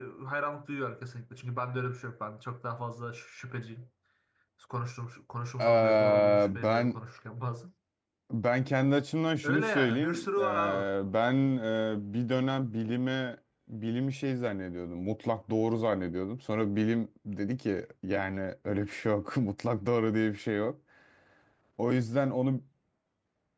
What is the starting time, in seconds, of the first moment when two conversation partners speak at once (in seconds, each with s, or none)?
5.6 s